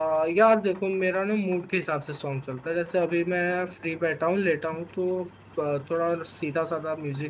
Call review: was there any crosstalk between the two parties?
No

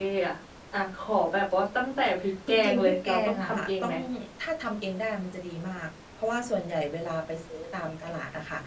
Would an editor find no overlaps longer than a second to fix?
No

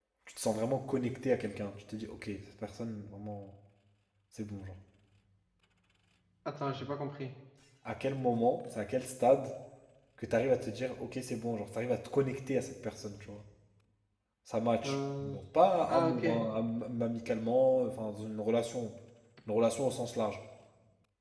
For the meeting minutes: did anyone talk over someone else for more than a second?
No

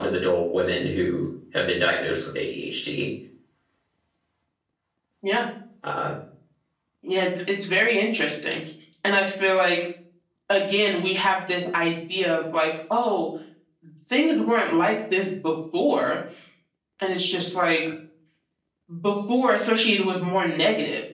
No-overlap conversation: Yes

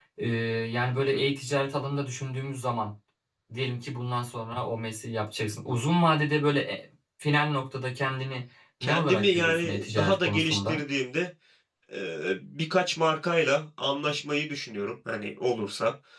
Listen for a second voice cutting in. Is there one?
Yes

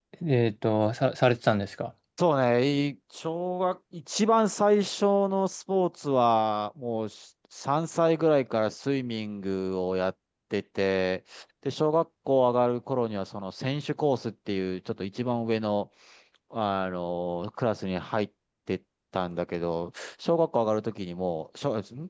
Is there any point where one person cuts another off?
No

